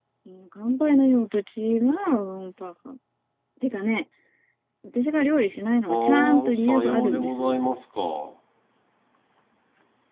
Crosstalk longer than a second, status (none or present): present